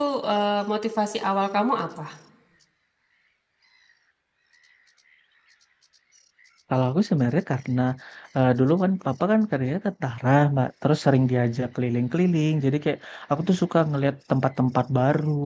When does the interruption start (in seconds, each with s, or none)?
none